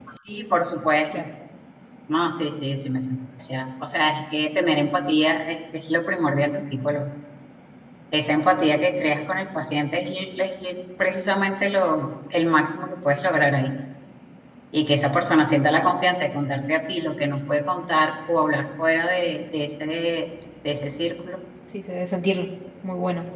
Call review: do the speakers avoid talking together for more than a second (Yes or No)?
Yes